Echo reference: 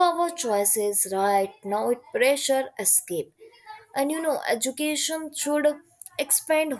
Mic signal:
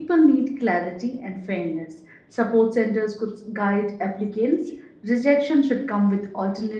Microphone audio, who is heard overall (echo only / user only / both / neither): user only